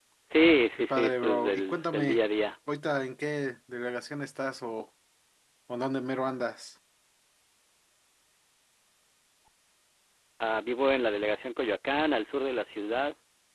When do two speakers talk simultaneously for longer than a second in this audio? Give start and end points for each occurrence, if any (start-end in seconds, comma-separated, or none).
0.8-2.2